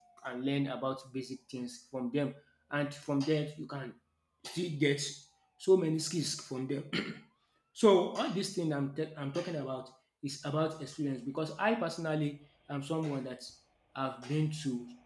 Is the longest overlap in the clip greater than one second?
No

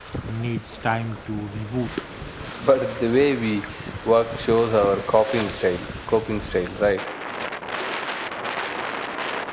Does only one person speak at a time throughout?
Yes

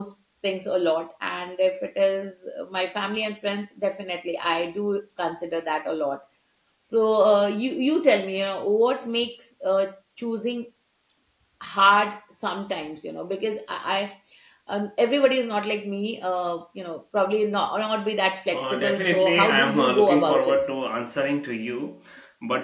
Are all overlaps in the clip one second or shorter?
No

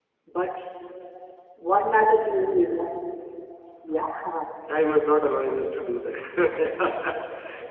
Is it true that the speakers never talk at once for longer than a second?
Yes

